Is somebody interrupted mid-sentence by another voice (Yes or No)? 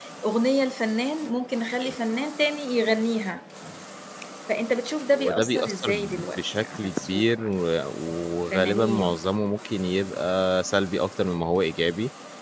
Yes